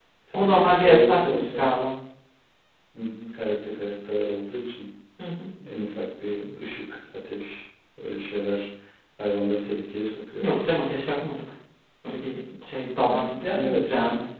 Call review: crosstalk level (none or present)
present